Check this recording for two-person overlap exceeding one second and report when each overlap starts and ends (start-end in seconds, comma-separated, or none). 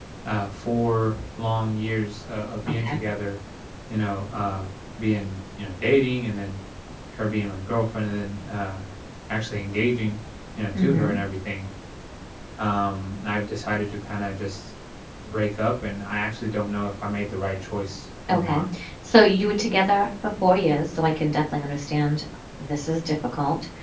none